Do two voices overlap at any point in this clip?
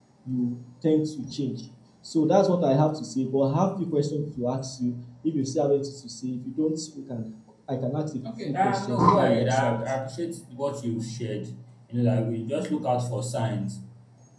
Yes, from 8.4 s

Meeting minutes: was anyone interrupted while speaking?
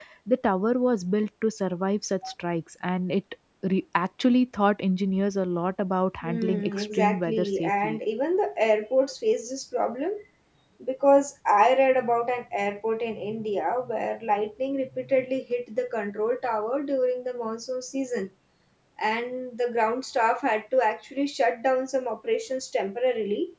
Yes, from 6.2 s

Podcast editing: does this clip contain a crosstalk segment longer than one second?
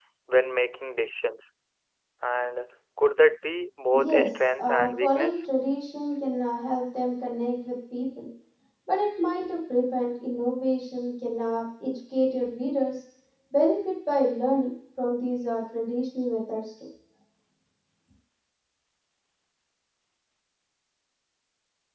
Yes, from 3.9 s

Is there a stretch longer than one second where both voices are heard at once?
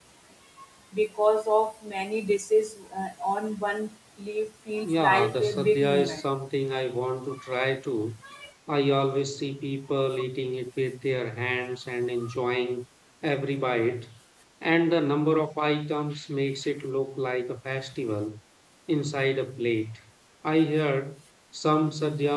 Yes, from 4.8 s

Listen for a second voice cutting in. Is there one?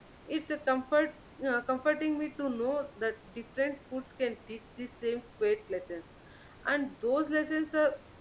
No

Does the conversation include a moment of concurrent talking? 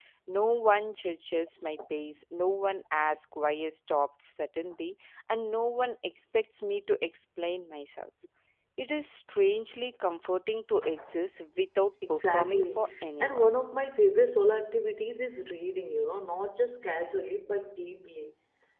Yes, from 12.0 s

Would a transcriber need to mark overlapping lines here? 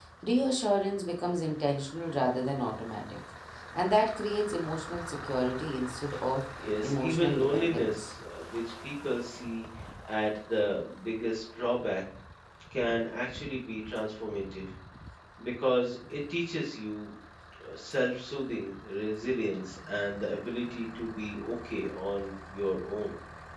Yes, from 6.6 s

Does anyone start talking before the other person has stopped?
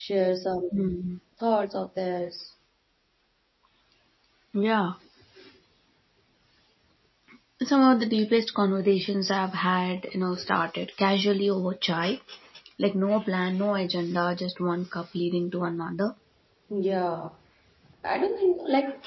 No

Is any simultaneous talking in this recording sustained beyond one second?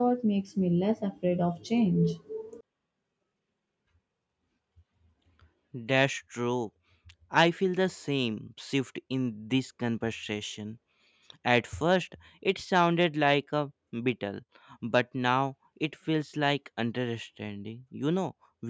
No

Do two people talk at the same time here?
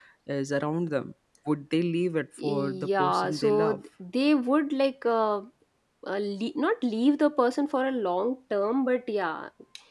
Yes, from 2.4 s

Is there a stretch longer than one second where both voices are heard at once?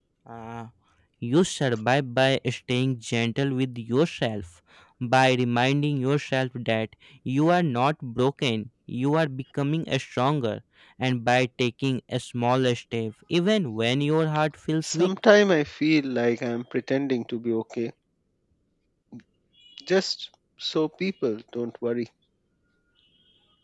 No

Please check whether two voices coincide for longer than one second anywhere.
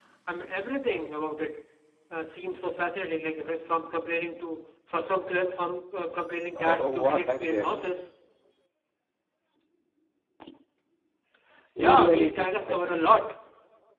Yes, from 6.6 s

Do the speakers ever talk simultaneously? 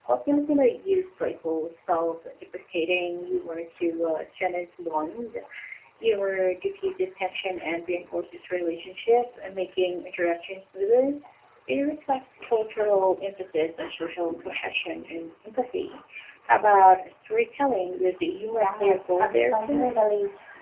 Yes, from 18.6 s

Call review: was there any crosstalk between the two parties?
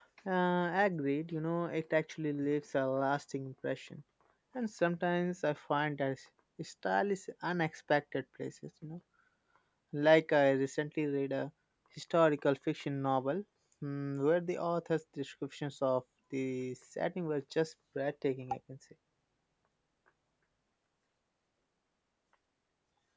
No

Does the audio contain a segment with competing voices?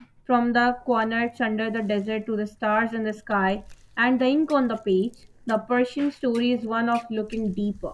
No

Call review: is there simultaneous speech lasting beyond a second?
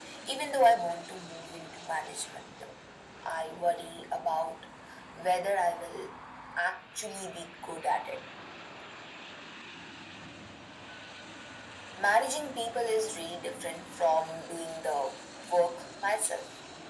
No

